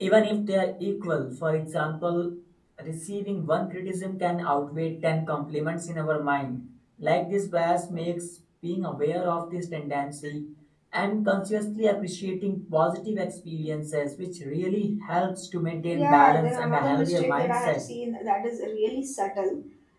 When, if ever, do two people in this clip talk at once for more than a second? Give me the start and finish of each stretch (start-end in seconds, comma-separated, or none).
15.9-17.8